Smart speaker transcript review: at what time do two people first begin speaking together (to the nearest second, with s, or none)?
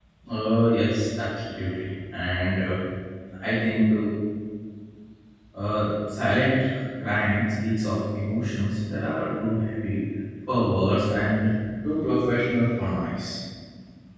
none